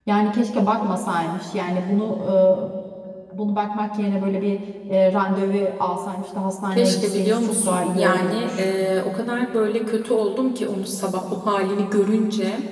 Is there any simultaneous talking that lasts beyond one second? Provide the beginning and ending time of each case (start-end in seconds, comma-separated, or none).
6.7-8.7